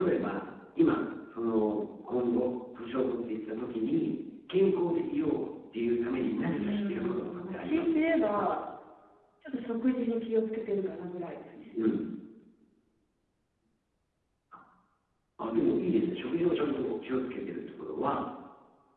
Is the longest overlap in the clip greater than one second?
Yes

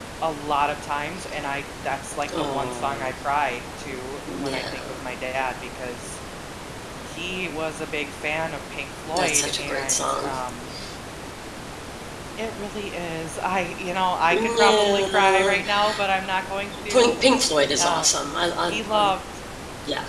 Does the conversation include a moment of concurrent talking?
Yes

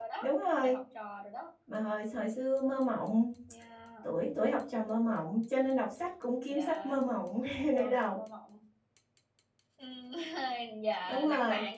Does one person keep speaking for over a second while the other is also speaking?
No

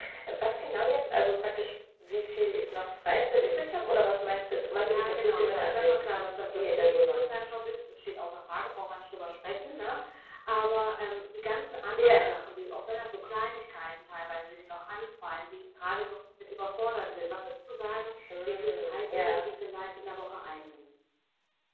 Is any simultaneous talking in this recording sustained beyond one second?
Yes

